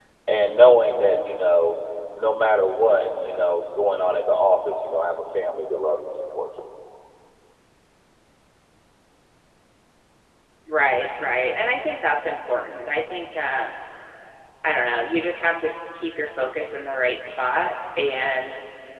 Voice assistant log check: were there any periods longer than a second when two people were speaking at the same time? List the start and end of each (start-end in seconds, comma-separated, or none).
none